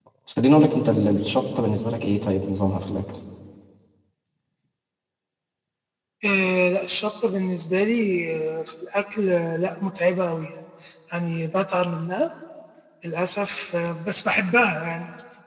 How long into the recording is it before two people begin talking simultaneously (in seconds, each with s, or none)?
none